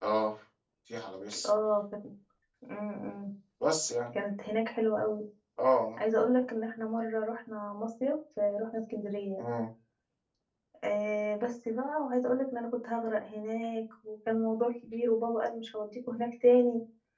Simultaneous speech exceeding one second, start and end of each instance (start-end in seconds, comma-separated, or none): none